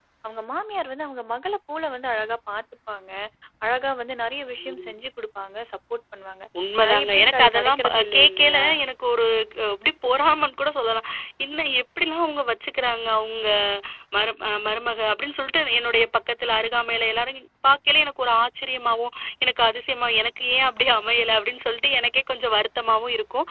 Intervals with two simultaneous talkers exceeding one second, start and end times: 6.9-8.6

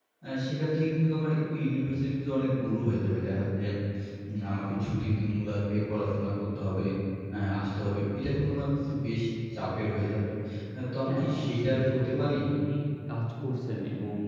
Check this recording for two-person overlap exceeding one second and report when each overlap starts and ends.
11.1-12.3

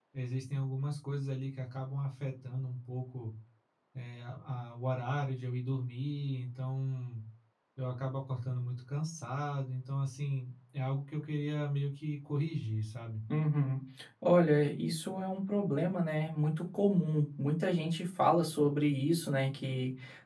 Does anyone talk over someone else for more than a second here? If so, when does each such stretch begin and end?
none

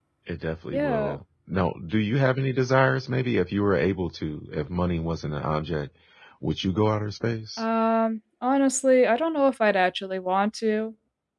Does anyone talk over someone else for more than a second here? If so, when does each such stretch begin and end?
none

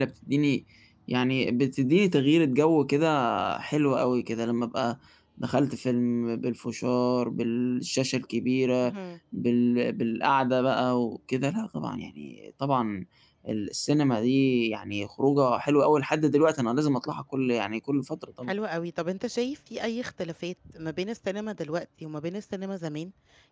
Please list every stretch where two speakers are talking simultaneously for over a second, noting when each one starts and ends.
none

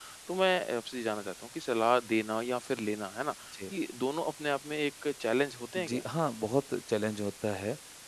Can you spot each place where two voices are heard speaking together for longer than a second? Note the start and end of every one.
none

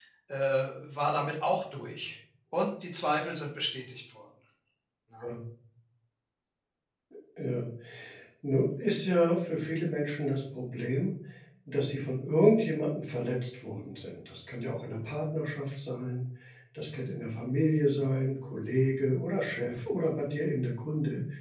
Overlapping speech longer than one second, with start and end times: none

